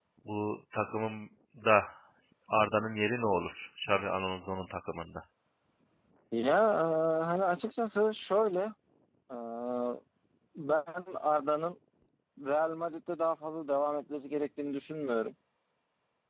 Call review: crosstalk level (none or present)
none